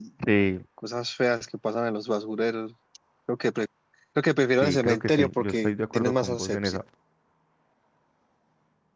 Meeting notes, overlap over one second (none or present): present